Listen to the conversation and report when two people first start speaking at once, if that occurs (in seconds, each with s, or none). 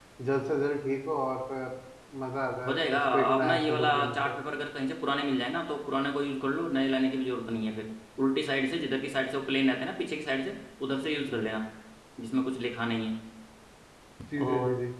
2.6 s